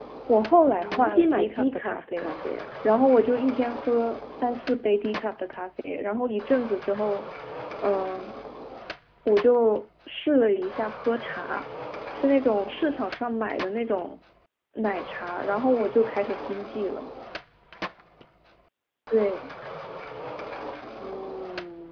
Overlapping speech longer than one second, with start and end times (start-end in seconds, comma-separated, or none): 0.7-2.4